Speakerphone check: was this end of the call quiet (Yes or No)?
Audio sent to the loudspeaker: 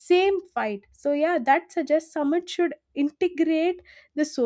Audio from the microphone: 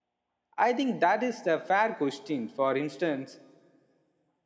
No